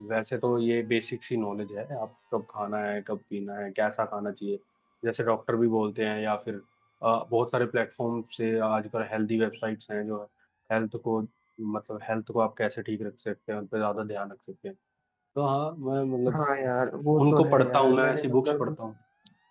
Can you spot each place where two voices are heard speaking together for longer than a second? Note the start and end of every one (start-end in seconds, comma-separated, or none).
17.2-18.7